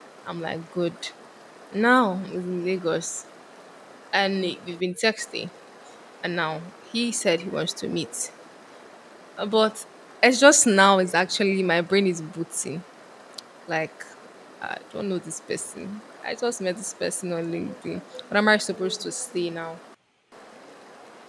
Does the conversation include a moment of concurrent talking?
No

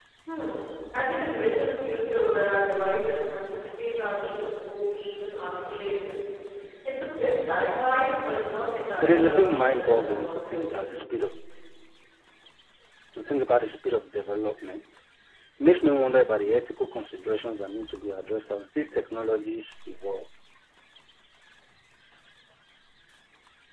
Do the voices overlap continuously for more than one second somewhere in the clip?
Yes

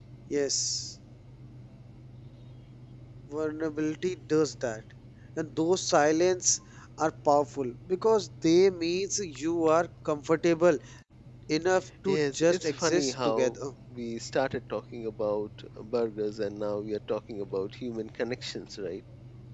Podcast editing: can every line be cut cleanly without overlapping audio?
No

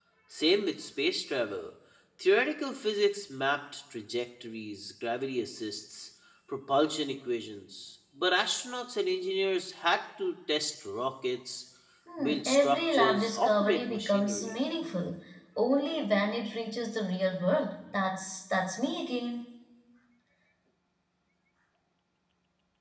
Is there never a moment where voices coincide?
No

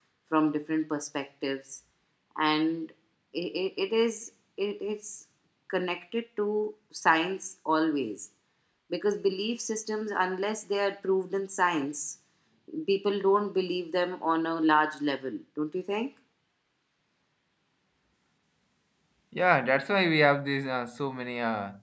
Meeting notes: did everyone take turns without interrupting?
Yes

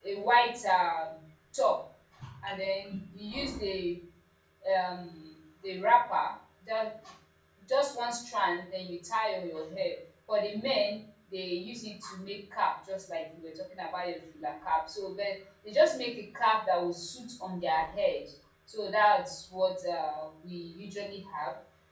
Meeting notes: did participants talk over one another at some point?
No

